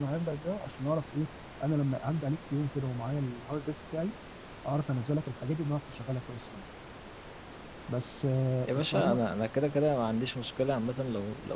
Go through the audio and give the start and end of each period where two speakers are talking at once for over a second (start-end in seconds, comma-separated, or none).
none